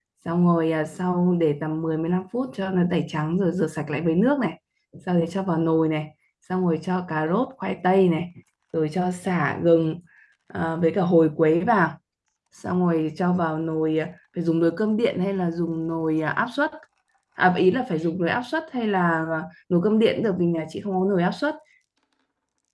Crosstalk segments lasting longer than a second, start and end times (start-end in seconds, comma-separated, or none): none